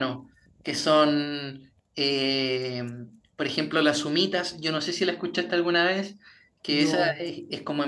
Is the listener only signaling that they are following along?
Yes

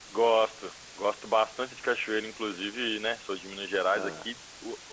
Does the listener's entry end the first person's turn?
No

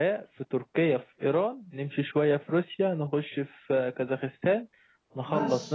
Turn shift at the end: Yes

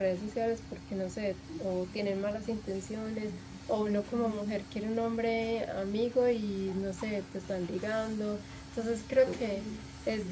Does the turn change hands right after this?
No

